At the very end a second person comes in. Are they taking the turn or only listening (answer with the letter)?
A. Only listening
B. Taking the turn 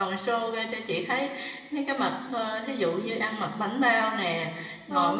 A